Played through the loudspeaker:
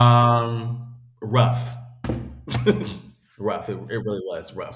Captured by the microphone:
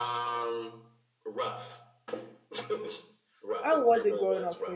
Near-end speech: present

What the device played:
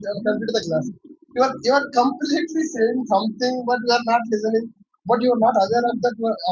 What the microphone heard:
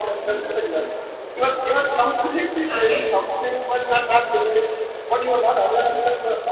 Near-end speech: present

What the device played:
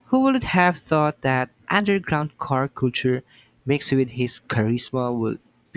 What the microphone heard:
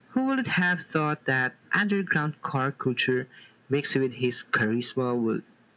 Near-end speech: none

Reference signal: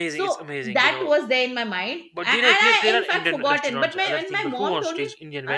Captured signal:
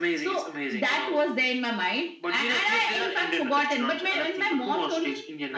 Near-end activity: none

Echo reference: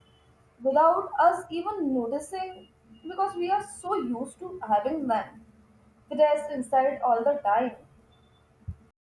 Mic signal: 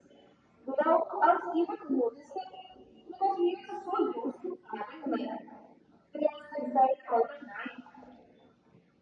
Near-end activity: none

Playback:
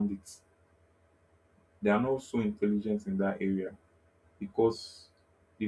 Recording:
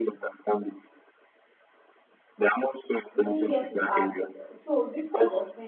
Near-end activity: present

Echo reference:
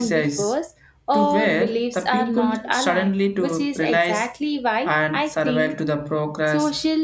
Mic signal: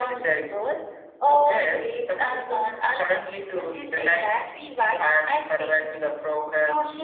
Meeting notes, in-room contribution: none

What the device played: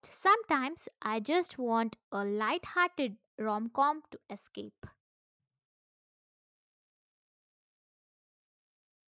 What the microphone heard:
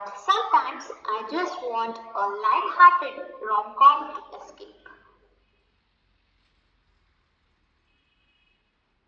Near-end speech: none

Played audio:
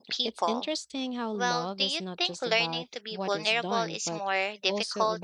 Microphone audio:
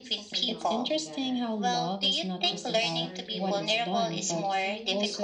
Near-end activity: present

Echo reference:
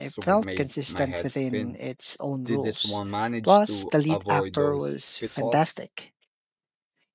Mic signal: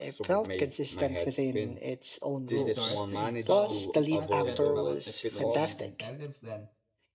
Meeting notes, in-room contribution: present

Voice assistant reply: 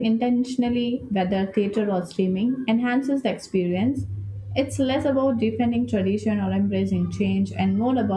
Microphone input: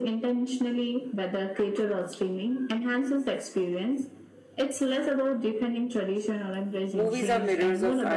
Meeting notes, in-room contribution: present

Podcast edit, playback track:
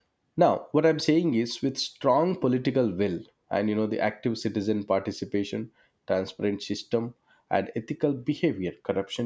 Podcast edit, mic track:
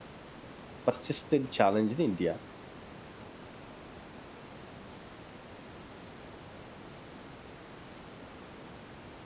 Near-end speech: present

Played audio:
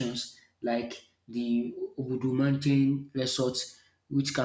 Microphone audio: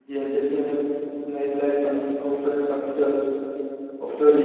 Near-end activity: present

